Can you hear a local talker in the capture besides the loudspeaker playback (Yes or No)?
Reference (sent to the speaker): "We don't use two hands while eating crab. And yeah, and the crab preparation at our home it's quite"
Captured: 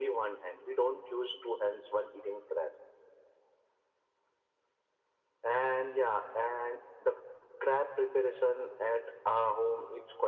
No